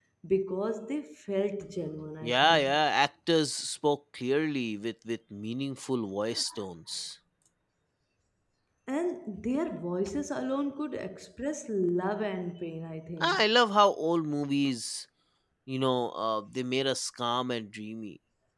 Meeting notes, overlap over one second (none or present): none